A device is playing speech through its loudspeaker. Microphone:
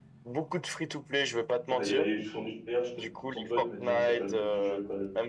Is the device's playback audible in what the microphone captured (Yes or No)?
Yes